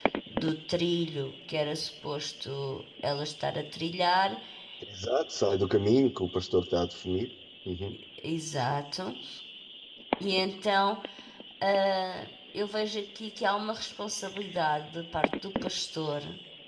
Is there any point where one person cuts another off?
No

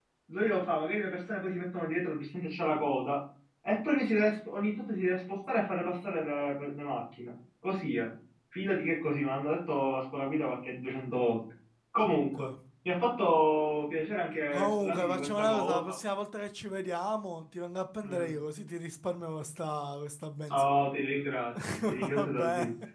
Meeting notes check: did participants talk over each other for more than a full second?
Yes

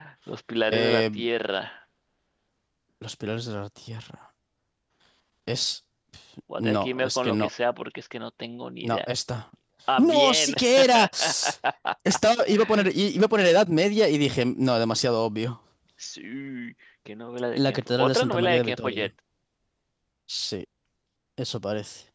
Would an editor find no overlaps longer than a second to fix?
No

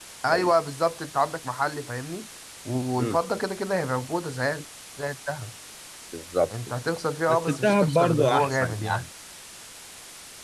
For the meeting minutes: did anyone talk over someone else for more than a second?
Yes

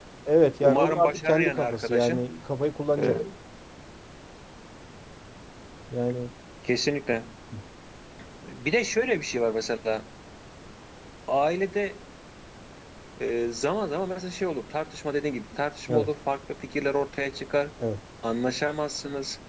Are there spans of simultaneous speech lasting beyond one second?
Yes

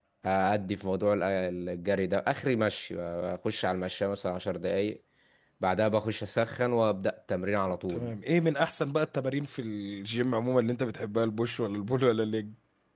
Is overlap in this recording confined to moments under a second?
Yes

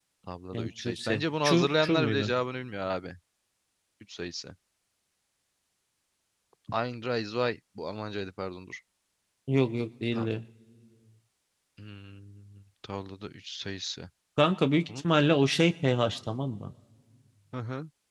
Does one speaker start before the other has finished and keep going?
Yes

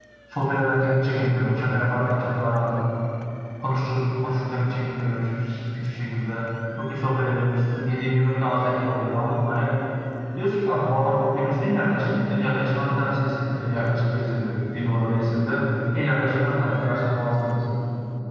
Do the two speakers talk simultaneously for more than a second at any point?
No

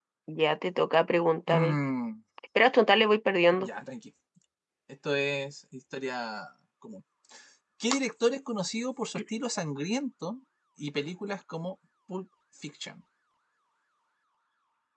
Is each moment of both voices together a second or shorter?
Yes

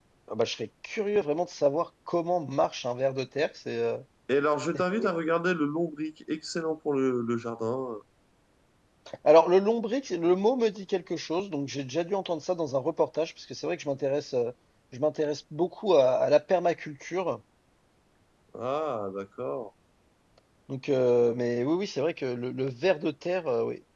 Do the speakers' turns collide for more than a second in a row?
No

